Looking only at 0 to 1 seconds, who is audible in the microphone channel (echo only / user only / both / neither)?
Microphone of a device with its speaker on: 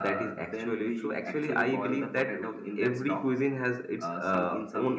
both